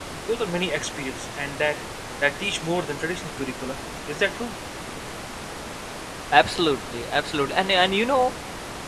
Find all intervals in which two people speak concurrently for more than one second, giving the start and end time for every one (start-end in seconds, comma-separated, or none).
none